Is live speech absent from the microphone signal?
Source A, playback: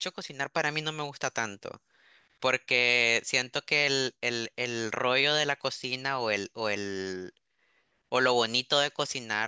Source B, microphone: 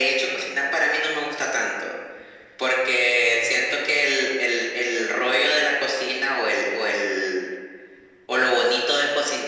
Yes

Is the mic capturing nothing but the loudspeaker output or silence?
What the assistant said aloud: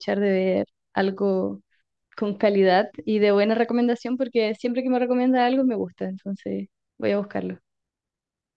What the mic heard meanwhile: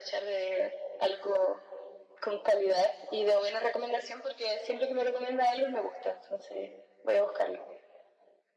Yes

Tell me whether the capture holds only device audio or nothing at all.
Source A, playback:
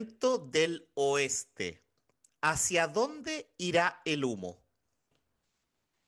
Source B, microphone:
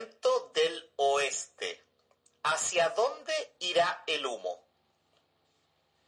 Yes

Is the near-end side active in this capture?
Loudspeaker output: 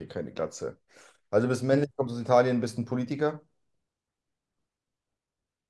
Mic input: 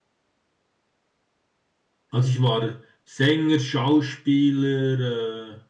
Yes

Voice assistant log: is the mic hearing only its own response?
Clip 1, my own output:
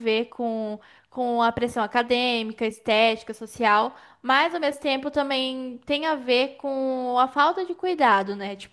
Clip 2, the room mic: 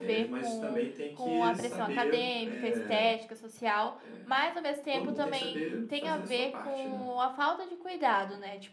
No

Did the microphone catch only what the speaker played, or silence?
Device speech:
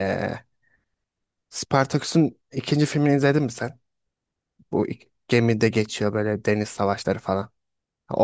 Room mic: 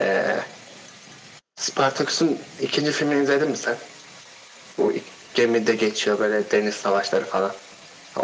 Yes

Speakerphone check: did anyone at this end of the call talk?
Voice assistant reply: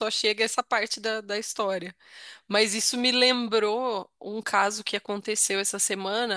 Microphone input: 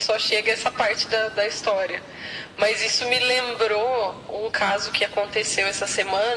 No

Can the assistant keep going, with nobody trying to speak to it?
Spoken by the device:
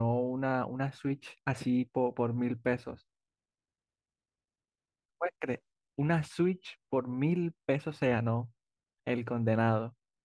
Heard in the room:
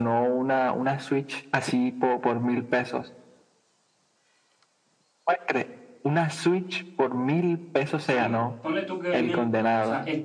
No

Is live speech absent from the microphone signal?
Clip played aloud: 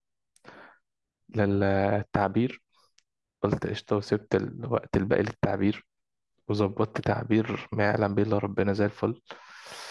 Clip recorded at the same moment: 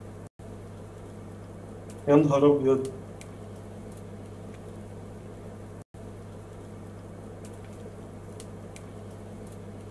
No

